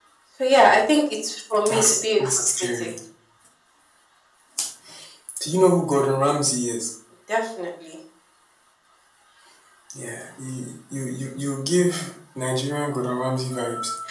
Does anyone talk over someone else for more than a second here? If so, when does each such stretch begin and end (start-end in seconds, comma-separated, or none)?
1.7-2.9